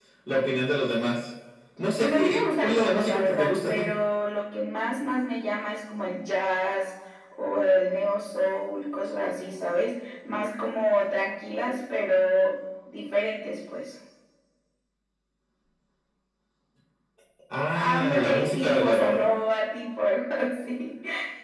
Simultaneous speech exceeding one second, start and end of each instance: 2.0-3.9, 17.7-19.2

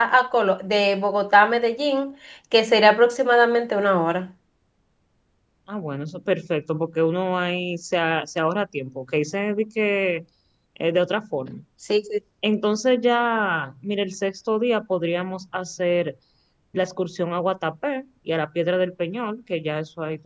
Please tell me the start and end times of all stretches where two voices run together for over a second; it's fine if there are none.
none

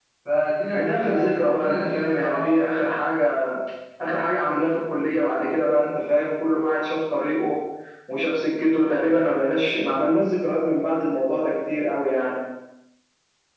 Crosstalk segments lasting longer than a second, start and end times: 0.7-2.5

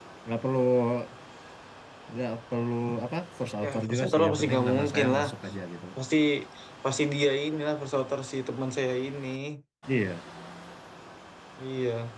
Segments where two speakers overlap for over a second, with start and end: 3.6-5.3

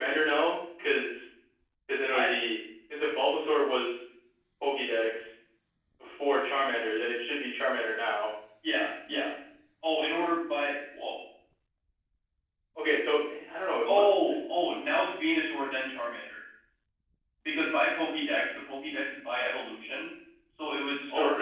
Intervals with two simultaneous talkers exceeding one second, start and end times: none

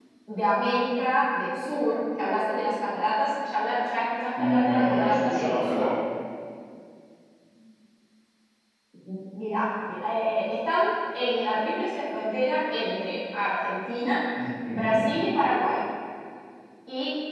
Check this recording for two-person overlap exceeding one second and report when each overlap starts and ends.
4.4-5.8

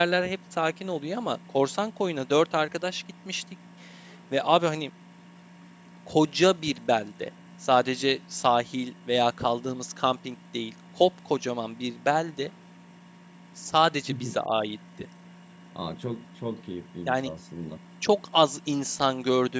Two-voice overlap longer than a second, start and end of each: none

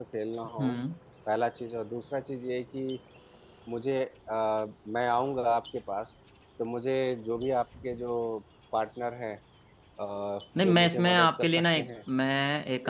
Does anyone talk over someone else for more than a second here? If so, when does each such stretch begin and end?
10.6-11.9

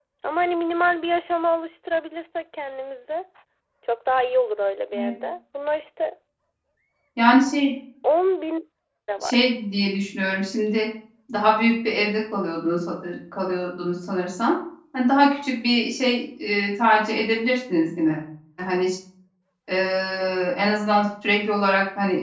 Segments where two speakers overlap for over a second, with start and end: none

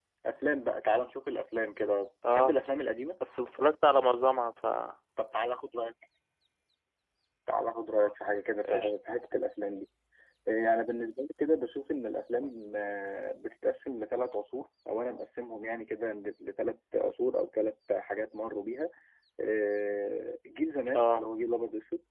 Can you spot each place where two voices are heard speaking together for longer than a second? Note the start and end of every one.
none

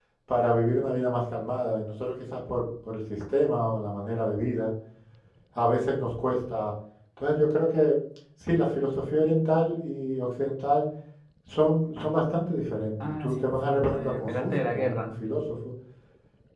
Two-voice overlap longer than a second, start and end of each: 13.0-15.1

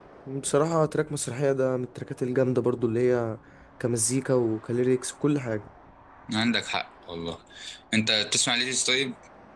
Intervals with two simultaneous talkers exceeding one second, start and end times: none

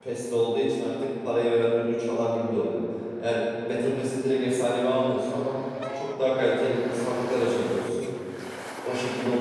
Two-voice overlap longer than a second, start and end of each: none

